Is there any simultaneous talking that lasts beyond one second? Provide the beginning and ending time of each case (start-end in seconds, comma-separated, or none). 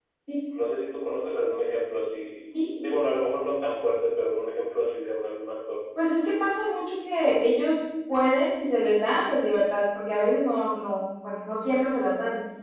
none